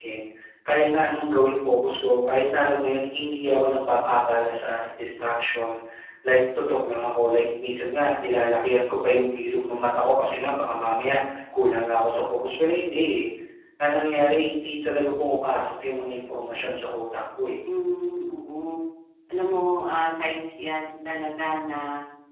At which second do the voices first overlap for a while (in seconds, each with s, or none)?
none